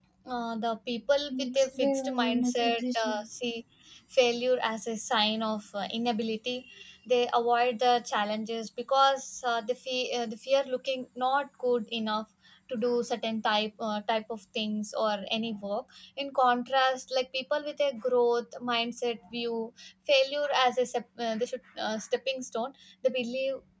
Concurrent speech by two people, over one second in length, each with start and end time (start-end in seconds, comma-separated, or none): 1.3-3.2